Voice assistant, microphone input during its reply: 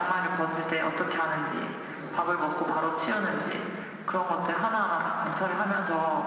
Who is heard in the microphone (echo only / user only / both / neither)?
echo only